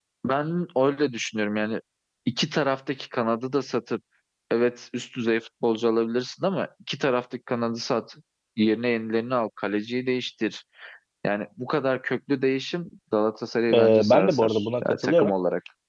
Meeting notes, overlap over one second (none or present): present